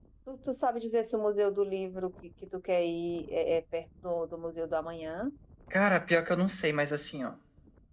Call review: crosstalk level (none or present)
none